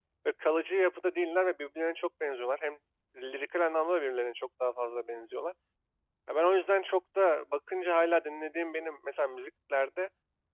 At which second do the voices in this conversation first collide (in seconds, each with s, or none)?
none